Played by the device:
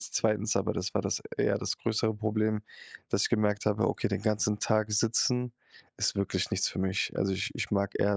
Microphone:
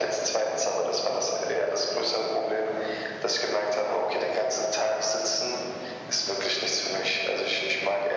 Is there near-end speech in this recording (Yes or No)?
No